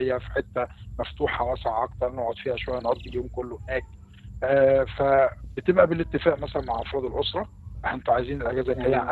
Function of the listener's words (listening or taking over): listening